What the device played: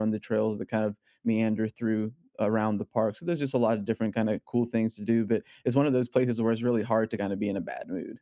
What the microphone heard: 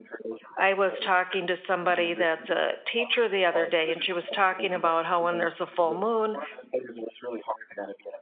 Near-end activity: present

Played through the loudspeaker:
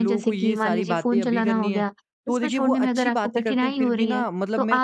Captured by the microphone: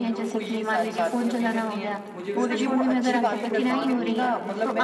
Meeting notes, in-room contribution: present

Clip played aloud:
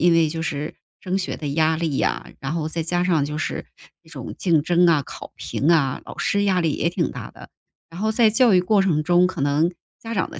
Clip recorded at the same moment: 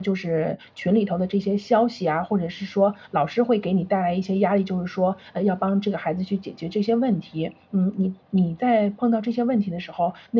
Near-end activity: present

